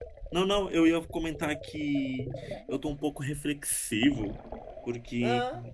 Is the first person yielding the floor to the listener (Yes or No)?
No